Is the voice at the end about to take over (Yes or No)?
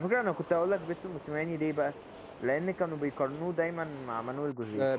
Yes